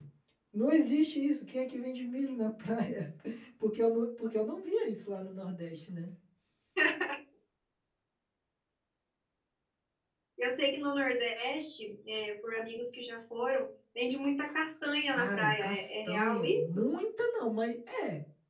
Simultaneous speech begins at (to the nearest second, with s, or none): 15 s